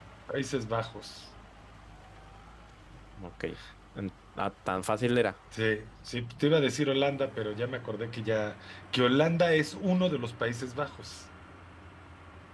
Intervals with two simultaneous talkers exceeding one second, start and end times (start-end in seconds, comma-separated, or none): none